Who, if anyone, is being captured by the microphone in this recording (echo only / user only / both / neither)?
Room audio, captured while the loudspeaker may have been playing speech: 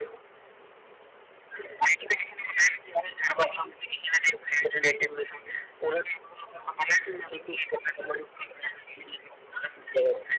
echo only